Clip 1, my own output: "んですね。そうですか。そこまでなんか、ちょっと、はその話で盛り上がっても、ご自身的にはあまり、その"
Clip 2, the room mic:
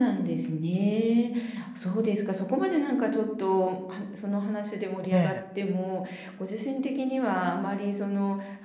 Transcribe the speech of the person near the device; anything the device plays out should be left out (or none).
ええ。